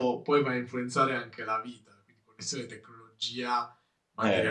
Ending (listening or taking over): taking over